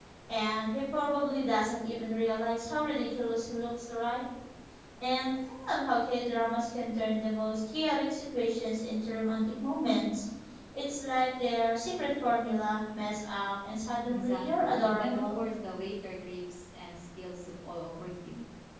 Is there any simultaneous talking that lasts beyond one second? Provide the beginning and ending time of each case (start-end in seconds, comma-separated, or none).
14.1-15.4